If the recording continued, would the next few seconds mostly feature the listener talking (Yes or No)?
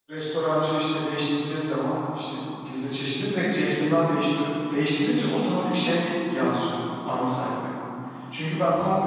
No